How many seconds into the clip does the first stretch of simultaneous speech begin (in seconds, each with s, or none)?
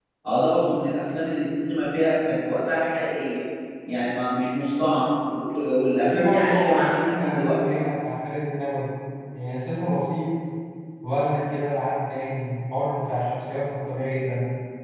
6.0 s